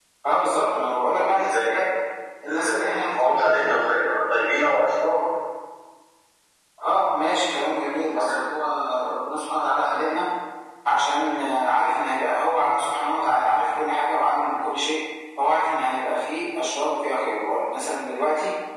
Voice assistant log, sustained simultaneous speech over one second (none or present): present